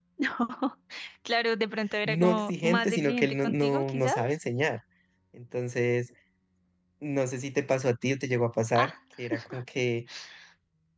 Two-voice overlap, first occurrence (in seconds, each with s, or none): 2.0 s